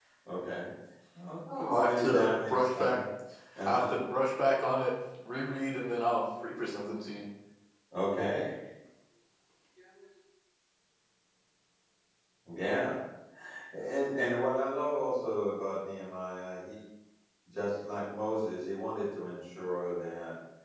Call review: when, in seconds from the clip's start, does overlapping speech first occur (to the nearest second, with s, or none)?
1 s